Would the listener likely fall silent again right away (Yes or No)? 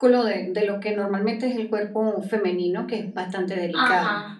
No